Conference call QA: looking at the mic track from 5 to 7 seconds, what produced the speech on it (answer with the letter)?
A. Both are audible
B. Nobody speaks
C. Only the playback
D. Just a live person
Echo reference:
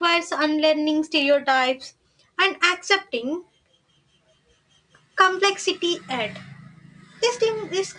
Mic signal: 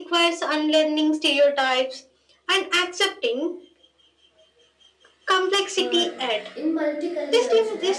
A